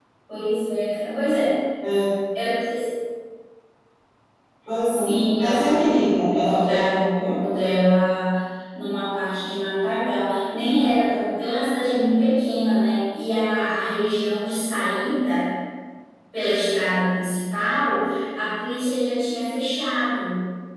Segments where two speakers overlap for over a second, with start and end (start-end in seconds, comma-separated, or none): 4.8-7.4